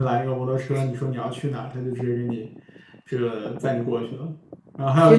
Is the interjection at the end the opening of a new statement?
No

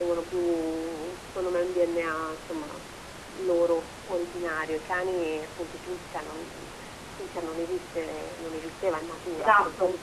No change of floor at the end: Yes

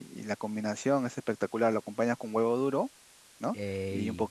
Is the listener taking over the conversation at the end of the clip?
No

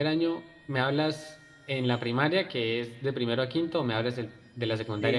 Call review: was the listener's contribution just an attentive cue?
No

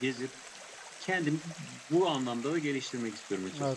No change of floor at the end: No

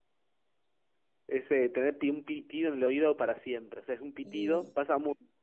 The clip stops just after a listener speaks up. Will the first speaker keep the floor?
Yes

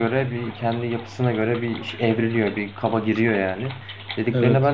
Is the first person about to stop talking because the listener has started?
No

